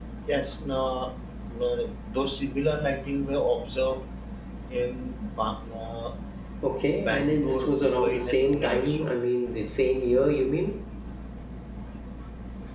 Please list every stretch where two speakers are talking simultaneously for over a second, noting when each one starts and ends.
7.0-9.1

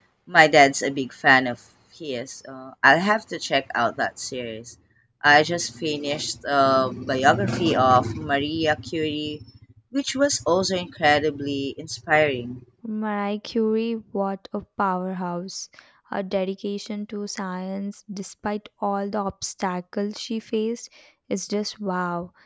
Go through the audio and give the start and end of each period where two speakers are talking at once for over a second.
none

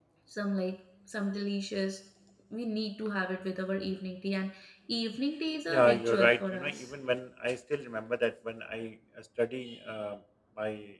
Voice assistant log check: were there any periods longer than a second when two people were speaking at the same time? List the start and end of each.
5.7-6.9

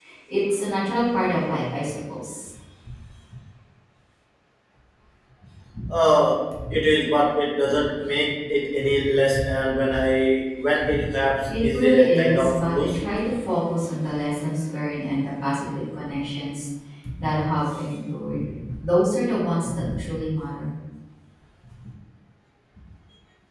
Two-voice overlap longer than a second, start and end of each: 11.5-13.0

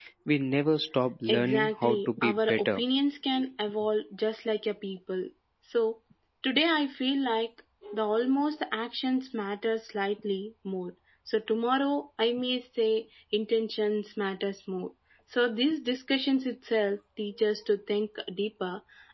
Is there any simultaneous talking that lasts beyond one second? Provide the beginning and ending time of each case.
1.3-2.8

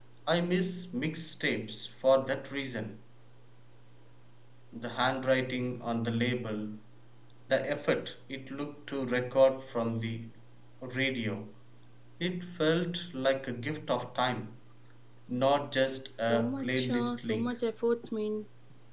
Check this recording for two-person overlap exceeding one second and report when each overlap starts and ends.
16.3-17.6

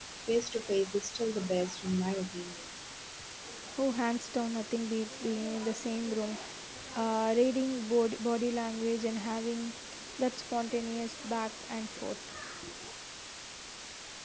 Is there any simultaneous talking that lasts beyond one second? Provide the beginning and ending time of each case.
none

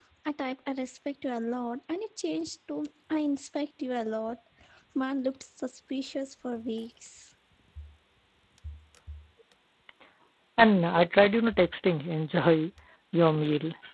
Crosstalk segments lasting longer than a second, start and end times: none

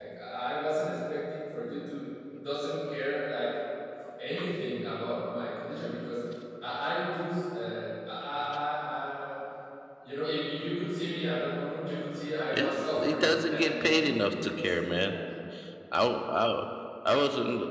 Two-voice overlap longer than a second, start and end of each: 12.5-15.2

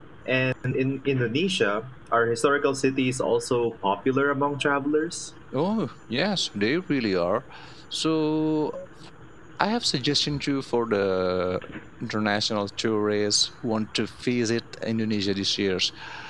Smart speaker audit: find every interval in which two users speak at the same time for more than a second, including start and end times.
none

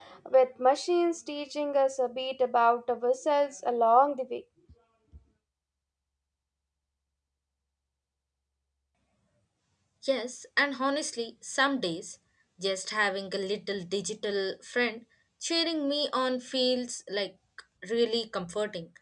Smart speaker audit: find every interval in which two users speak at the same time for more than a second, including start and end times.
none

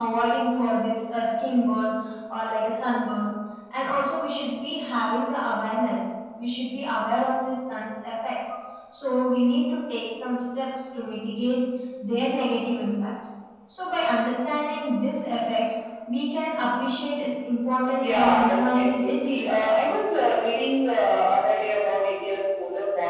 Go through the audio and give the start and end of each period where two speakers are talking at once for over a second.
17.8-20.3

